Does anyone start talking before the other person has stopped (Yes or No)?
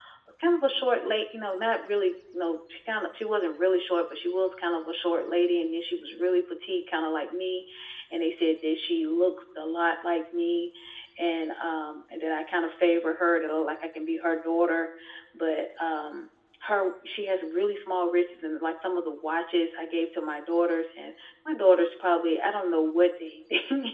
No